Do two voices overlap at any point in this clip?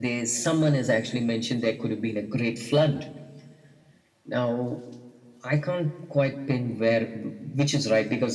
No

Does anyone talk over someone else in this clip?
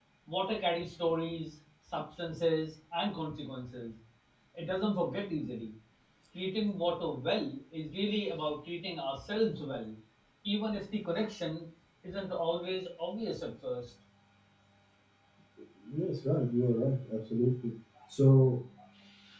No

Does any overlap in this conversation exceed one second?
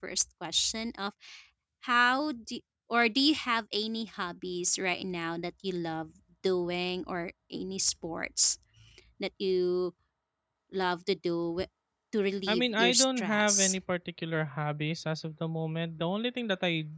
Yes, from 12.5 s

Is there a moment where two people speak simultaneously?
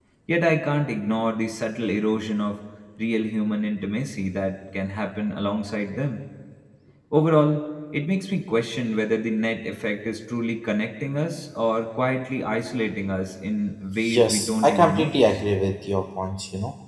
Yes, from 14.0 s

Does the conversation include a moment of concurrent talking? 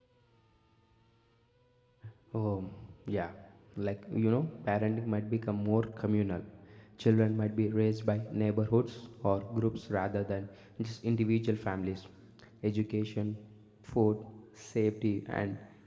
No

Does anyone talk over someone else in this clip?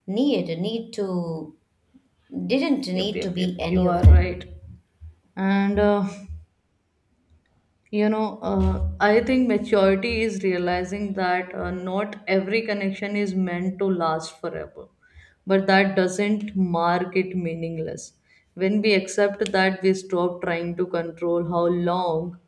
Yes, from 3.0 s

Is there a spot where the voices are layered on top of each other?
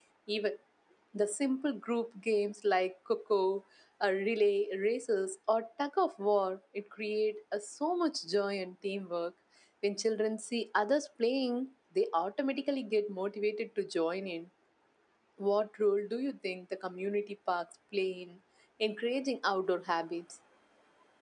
No

